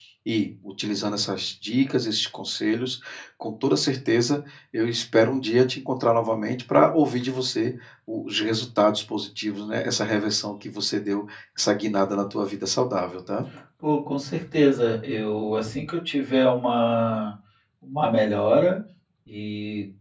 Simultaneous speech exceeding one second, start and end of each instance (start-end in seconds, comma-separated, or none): none